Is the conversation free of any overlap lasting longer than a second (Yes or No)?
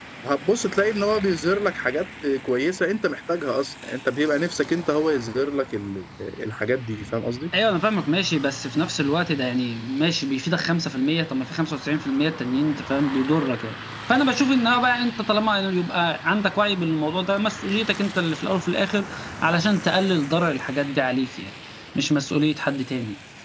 Yes